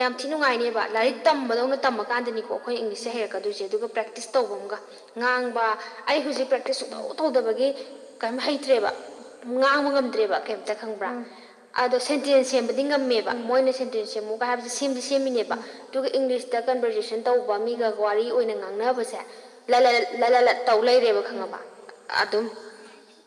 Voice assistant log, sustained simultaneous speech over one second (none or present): none